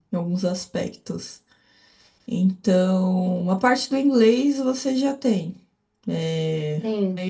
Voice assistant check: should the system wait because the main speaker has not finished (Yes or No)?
Yes